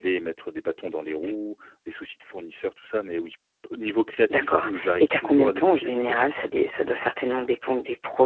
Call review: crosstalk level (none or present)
present